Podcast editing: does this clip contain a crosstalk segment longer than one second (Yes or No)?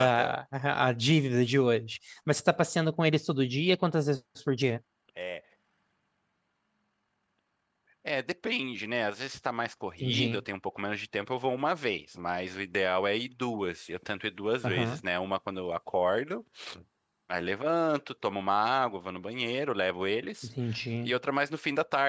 No